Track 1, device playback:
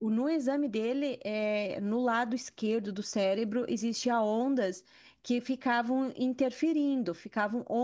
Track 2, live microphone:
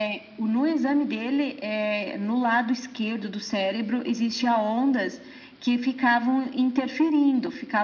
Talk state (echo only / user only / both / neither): echo only